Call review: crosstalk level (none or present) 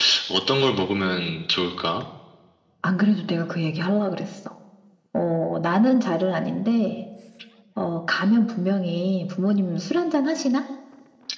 none